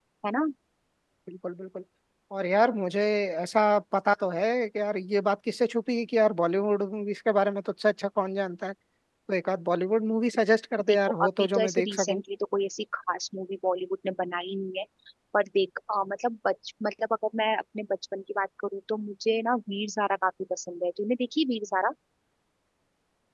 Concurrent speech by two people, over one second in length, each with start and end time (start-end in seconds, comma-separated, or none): 10.9-12.2